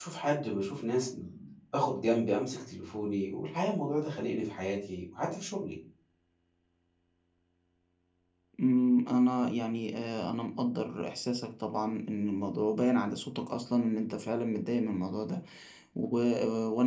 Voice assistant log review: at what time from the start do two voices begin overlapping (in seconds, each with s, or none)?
none